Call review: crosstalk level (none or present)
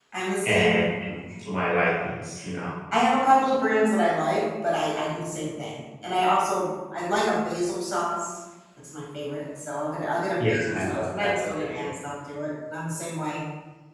present